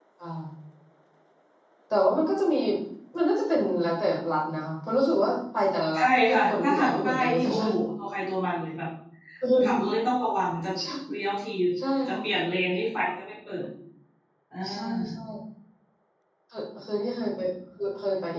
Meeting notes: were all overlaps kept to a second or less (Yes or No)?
No